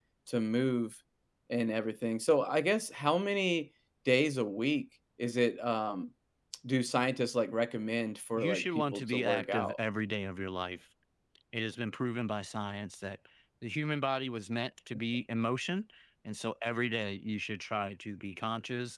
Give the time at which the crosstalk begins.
8 s

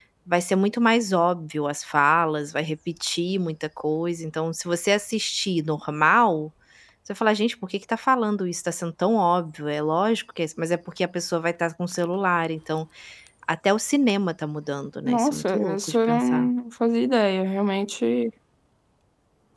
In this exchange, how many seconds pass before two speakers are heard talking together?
15 s

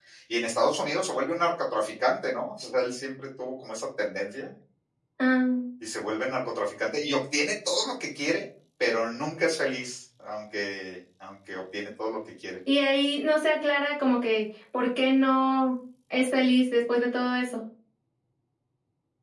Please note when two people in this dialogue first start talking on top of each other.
none

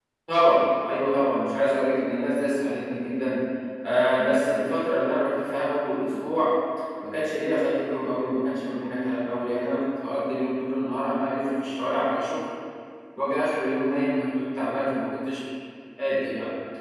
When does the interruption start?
none

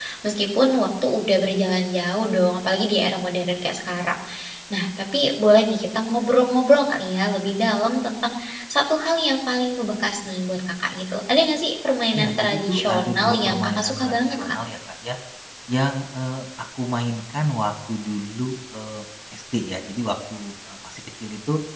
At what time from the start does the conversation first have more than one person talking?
12 s

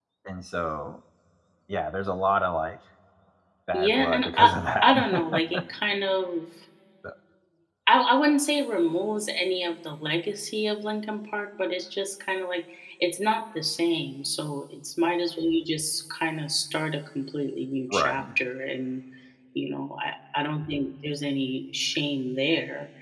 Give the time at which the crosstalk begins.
4 s

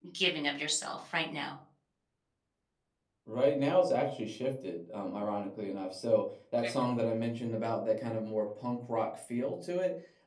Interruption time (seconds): none

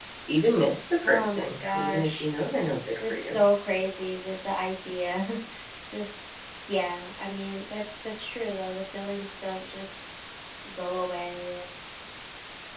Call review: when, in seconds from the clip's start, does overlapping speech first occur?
1 s

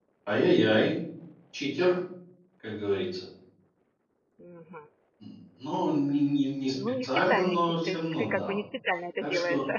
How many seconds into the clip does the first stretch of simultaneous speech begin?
7 s

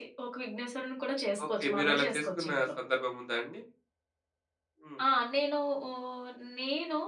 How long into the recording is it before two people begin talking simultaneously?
1 s

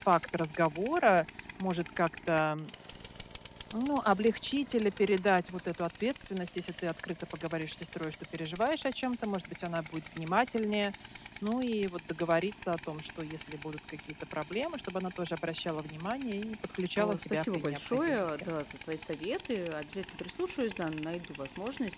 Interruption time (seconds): 17 s

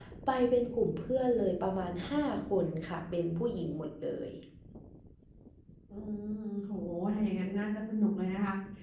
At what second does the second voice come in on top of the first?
none

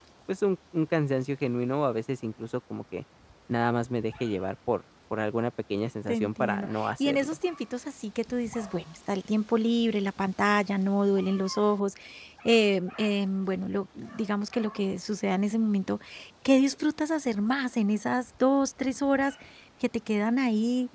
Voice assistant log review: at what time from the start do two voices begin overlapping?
6 s

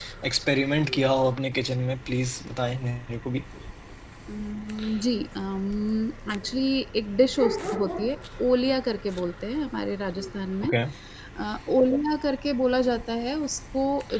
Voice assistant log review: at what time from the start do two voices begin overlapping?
none

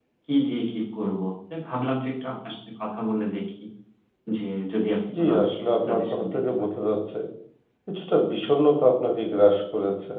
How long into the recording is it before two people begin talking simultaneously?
5 s

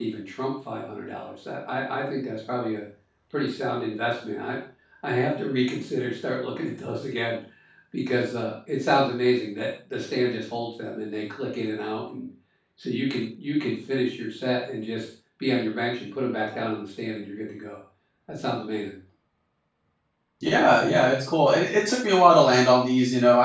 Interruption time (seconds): none

